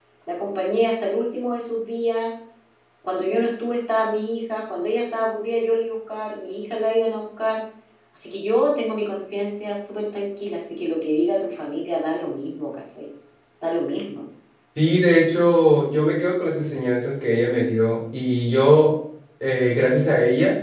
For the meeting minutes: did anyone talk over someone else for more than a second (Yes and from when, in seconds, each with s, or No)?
No